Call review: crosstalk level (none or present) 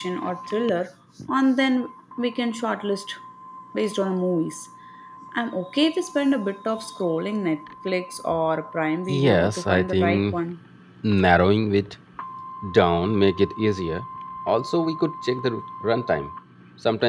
present